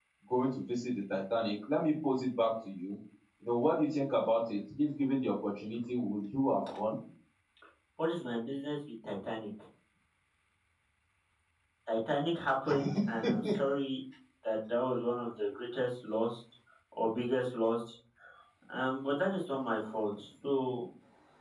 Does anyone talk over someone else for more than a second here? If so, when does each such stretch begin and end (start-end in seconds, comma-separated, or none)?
none